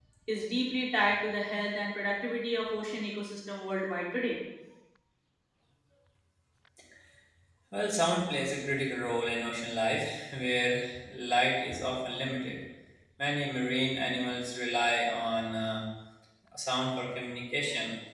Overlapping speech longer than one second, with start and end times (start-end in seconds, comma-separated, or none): none